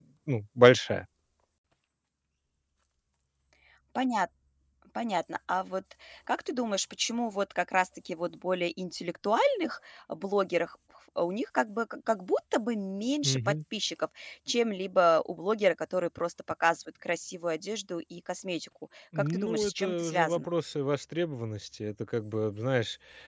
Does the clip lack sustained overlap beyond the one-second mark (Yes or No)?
No